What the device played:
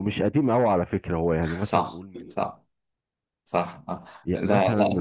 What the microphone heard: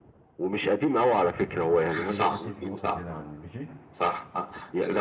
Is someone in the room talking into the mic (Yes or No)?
Yes